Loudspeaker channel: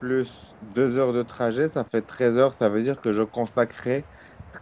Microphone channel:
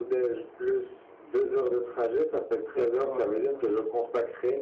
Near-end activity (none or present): present